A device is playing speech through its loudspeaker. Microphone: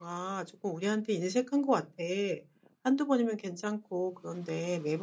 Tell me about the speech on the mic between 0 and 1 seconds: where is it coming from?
user only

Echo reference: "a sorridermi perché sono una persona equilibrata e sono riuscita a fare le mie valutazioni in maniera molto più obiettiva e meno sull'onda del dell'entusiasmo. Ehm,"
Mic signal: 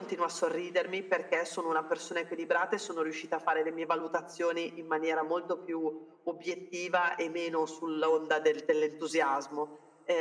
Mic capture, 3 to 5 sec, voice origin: echo only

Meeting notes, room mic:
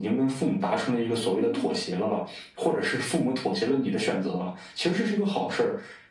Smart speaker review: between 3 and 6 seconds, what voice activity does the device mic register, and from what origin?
echo only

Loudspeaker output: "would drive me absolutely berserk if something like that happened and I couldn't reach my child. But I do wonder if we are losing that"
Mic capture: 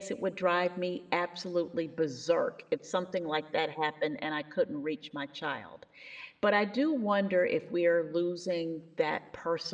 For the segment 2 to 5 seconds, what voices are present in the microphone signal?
echo only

